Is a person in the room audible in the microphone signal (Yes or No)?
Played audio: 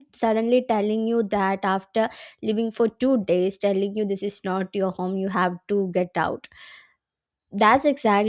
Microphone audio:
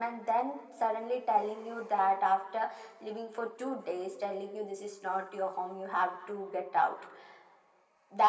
No